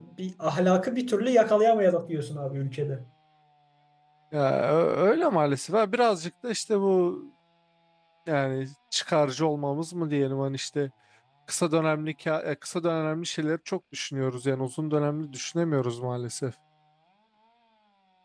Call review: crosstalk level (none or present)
none